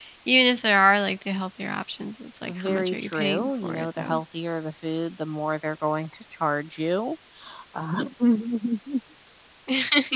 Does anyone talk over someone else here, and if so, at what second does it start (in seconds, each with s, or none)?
2.5 s